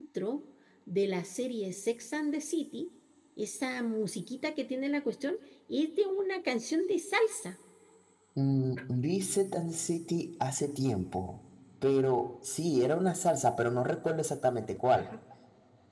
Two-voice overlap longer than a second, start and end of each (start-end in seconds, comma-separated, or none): none